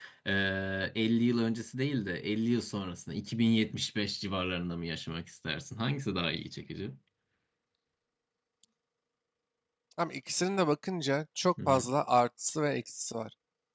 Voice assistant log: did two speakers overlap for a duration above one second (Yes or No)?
No